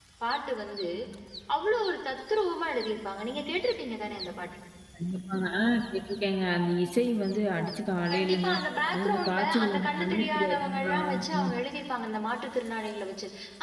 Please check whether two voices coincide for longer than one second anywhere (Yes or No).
Yes